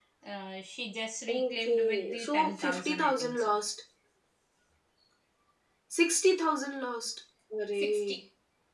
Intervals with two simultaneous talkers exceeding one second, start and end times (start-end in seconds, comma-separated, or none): 1.3-3.5